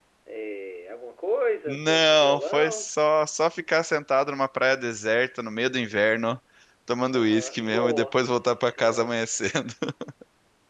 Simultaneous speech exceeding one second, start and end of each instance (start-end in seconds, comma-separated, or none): 1.7-2.9, 7.1-9.1